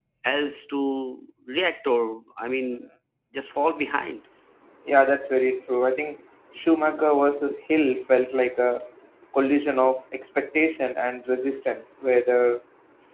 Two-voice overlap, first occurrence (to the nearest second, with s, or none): none